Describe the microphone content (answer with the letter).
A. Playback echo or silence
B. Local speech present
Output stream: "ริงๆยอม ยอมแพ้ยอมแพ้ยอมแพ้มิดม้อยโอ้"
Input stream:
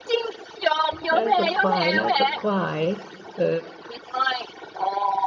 B